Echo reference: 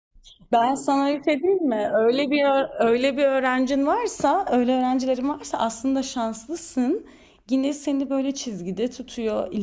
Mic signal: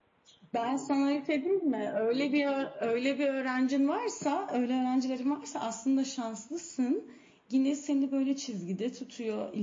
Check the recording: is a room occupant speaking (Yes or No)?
No